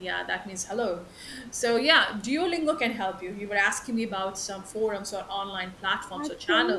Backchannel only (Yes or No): No